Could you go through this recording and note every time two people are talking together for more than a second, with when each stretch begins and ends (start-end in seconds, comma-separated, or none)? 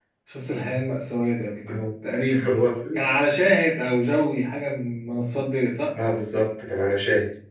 none